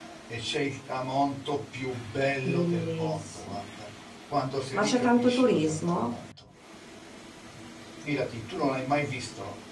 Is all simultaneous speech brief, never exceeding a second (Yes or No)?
No